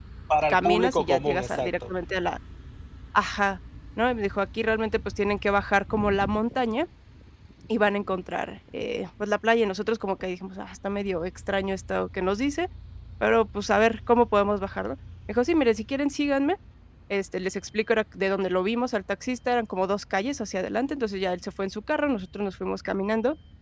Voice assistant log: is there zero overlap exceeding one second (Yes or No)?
No